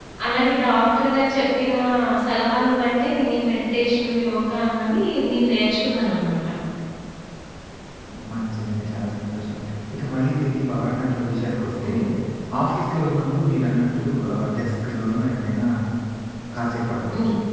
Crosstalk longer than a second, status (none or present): none